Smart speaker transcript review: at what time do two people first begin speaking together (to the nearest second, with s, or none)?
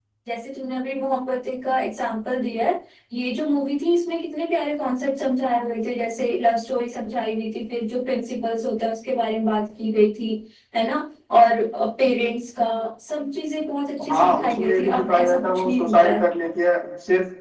14 s